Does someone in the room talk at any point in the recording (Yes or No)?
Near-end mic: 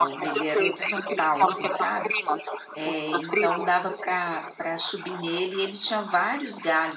Yes